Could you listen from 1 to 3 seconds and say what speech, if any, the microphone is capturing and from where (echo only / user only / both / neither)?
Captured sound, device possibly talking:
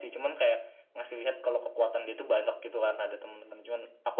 echo only